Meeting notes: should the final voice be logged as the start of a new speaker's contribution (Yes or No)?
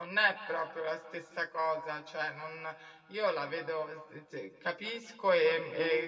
No